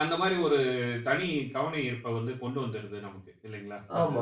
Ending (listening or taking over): taking over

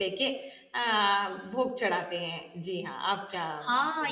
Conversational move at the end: taking over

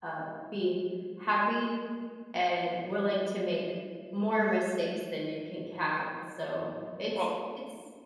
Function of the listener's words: listening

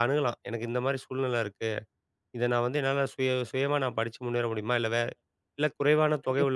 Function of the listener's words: taking over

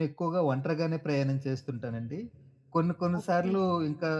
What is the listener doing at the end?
listening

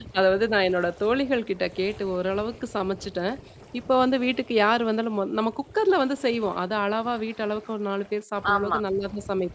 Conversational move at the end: listening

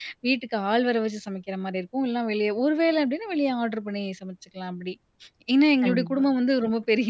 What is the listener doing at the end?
listening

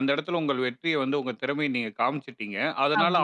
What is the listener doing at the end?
listening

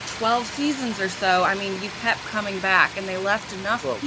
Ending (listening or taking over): listening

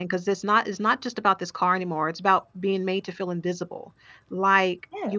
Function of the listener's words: listening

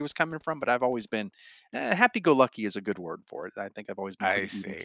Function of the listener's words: taking over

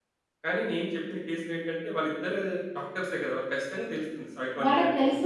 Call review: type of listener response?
taking over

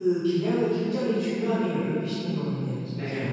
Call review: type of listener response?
taking over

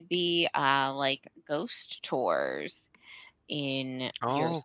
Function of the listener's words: taking over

